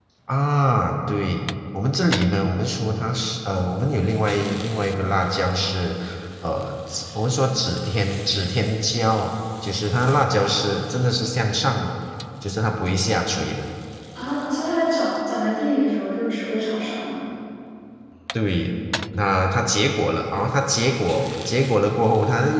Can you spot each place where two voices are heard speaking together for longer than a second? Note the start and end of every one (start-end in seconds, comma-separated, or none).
none